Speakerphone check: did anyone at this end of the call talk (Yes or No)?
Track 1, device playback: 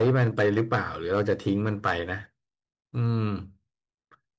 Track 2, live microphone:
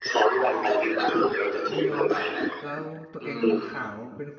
Yes